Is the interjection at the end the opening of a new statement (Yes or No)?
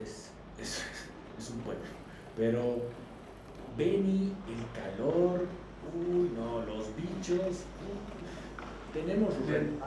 No